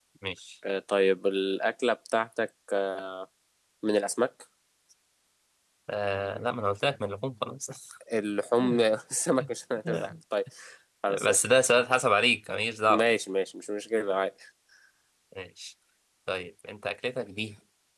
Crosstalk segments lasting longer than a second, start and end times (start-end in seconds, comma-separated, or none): none